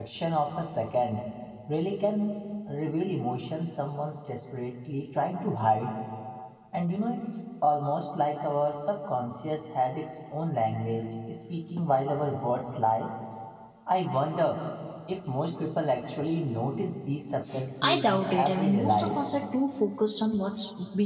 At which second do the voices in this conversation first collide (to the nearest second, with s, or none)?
18 s